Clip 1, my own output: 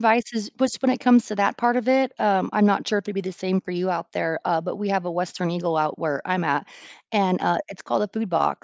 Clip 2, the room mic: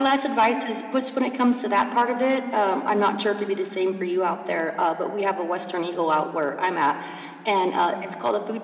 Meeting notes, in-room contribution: none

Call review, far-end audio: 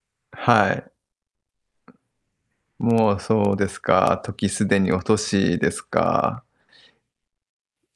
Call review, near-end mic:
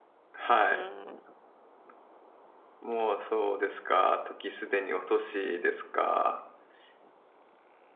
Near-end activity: present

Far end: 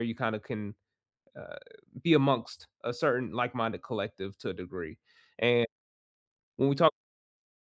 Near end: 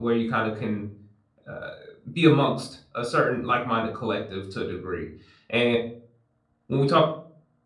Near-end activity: none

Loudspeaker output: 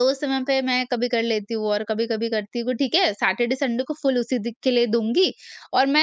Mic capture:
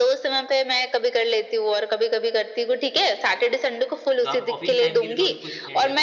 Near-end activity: present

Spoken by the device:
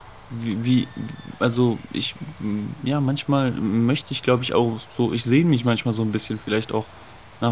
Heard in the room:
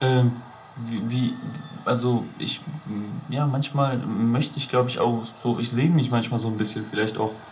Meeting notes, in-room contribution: none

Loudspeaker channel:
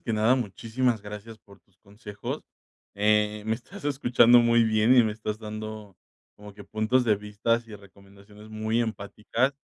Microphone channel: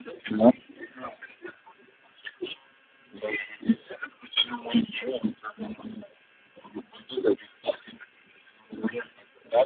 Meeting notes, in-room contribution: none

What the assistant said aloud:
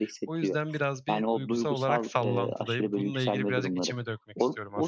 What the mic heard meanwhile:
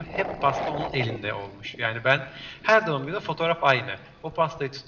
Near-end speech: present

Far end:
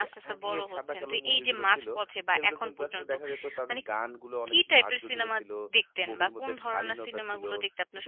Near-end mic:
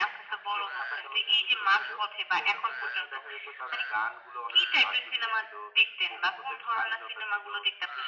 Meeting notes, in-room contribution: none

